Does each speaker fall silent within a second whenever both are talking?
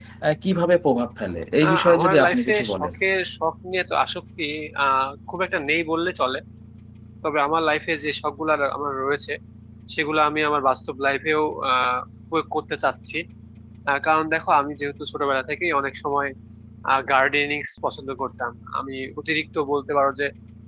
No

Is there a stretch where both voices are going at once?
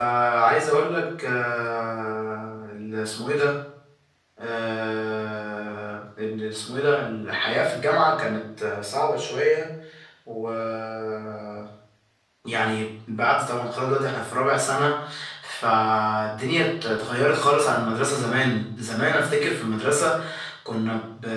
No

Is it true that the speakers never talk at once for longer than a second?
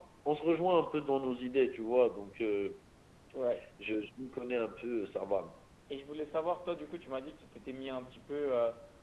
Yes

